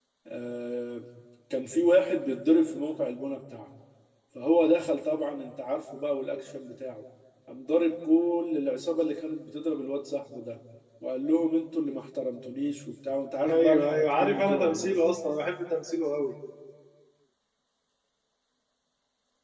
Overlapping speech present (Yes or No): Yes